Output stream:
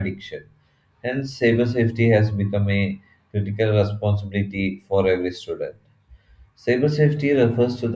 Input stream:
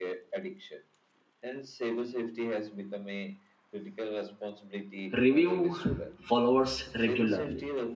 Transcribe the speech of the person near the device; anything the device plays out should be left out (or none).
review followers regularly.